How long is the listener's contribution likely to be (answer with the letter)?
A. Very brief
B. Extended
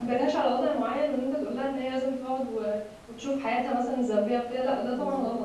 B